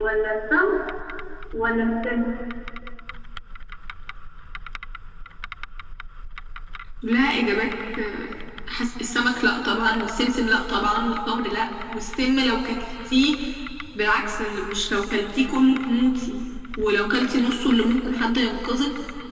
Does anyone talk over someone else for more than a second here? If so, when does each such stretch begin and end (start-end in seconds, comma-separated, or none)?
none